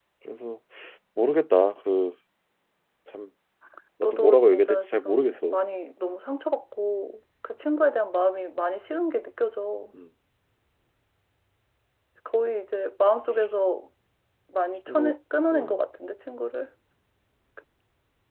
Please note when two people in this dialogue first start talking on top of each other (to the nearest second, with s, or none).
4 s